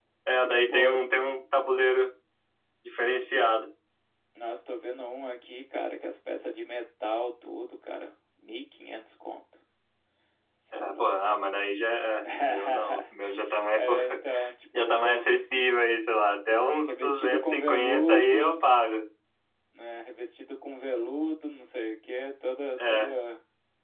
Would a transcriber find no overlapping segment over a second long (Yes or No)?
No